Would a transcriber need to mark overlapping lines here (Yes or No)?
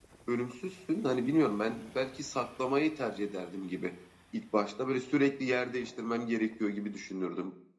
No